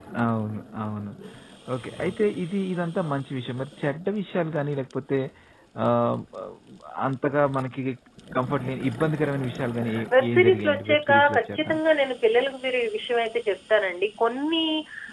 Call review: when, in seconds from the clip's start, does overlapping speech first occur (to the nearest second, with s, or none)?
10 s